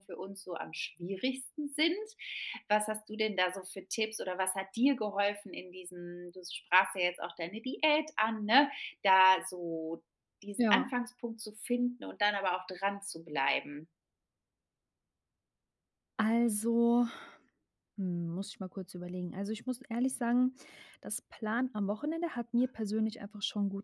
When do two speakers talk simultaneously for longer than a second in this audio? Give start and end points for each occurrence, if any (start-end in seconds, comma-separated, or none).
none